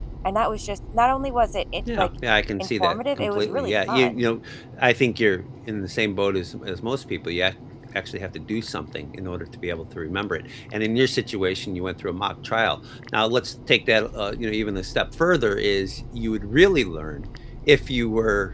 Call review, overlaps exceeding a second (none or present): present